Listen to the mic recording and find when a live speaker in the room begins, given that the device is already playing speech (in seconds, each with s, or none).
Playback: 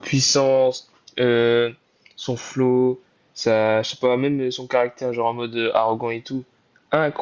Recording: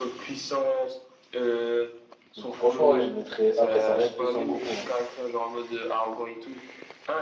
2.4 s